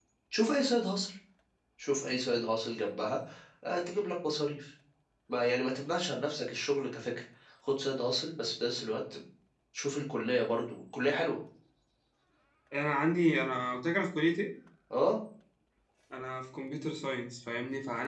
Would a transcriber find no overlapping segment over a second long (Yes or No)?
Yes